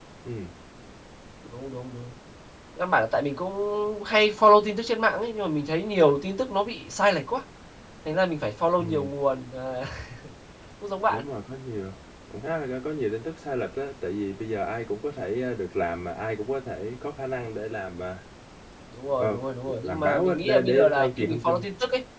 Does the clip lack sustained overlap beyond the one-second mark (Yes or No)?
No